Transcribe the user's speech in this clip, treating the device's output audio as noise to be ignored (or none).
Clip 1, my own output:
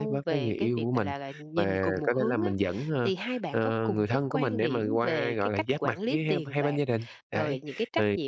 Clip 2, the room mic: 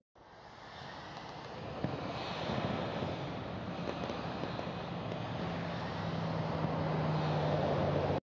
none